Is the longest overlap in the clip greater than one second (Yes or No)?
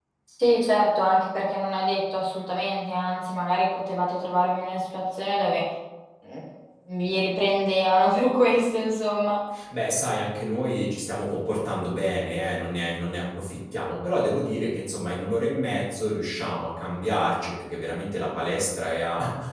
No